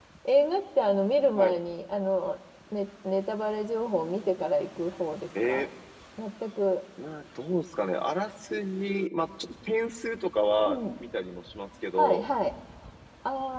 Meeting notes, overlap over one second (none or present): none